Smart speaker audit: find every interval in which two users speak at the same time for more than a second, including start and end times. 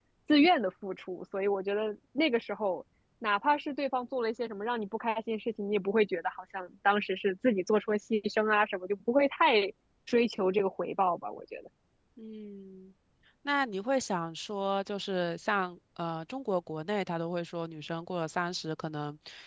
none

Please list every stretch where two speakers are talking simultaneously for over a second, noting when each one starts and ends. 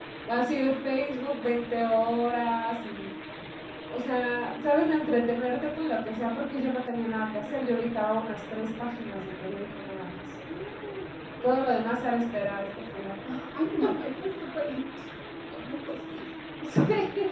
none

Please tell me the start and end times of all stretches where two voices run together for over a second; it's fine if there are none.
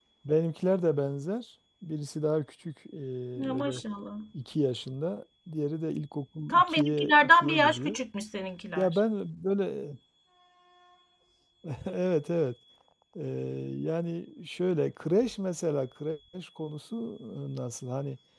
6.5-8.0

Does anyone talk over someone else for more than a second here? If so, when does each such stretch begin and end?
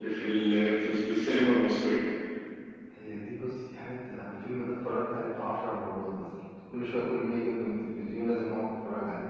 none

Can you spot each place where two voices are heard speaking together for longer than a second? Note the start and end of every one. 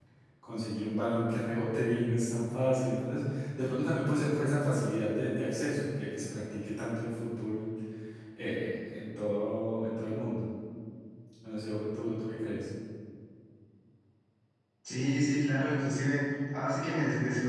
none

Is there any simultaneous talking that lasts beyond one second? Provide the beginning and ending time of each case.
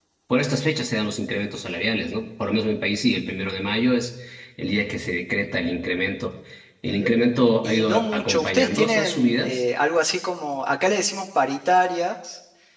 7.6-9.6

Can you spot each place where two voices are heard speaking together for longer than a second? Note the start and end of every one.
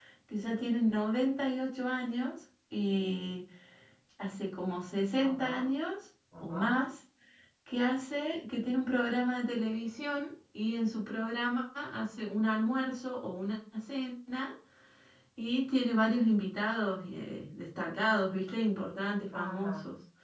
none

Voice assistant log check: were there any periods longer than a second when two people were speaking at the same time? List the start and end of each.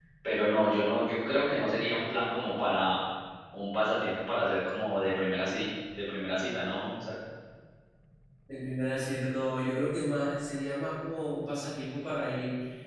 none

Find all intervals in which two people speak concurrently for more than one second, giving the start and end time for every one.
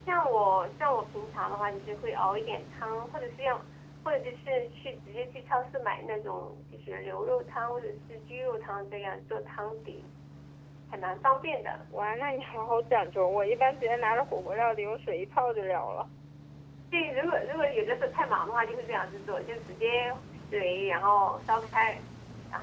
none

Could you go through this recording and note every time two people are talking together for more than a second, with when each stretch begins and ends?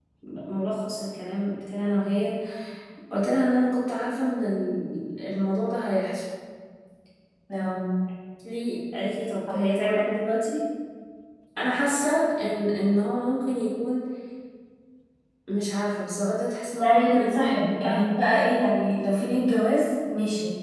16.8-18.4

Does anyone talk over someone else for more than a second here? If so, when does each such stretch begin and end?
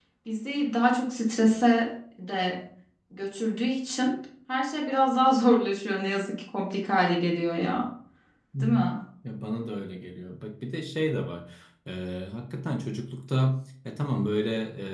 none

